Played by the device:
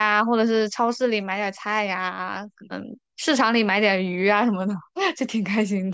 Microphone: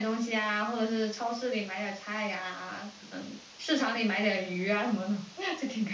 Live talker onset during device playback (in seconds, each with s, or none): none